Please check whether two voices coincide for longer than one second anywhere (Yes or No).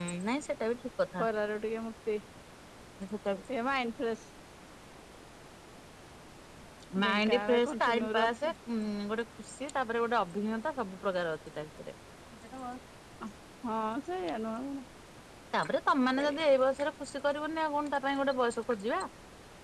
Yes